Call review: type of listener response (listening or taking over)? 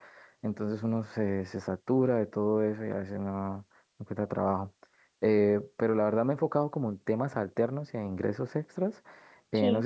listening